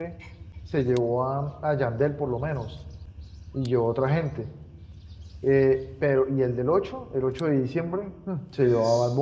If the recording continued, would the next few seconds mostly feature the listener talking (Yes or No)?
No